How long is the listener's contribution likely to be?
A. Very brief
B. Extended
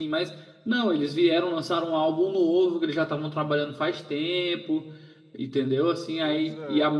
A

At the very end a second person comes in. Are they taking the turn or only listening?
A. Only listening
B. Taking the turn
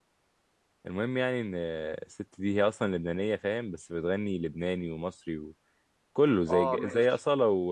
A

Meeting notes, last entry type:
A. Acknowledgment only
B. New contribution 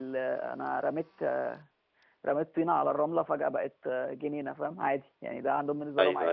B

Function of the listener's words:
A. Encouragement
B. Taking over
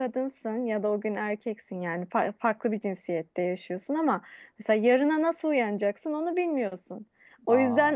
A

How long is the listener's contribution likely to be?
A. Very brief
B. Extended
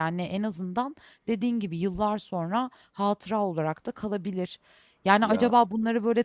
A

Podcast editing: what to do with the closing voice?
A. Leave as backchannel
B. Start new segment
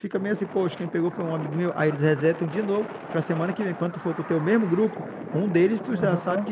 A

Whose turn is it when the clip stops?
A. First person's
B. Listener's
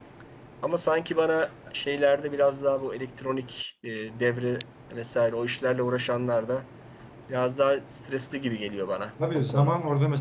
B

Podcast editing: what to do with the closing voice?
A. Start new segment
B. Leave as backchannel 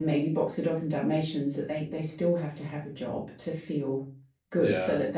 B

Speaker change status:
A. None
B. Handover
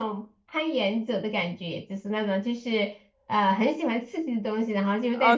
B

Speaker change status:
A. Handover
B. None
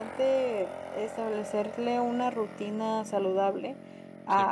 B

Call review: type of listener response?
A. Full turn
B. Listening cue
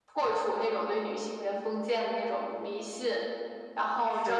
A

